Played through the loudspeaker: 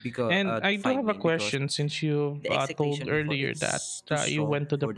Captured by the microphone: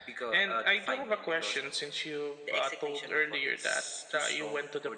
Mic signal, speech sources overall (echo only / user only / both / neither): echo only